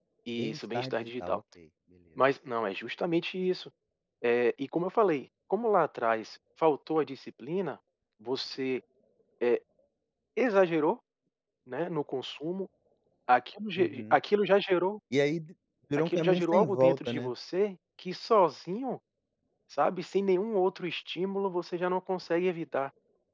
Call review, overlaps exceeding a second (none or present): present